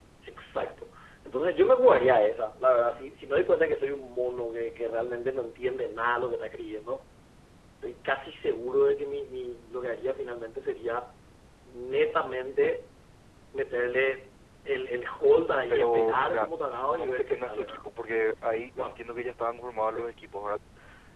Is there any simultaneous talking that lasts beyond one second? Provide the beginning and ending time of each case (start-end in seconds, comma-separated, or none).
15.7-17.8